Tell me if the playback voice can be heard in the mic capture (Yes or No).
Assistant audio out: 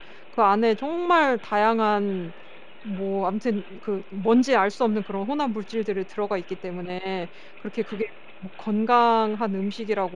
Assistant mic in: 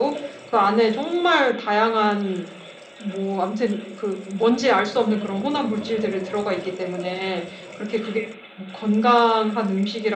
Yes